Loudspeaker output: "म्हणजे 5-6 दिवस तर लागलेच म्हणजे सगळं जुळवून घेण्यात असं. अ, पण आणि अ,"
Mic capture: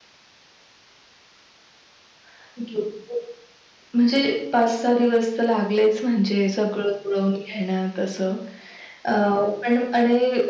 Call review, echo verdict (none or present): present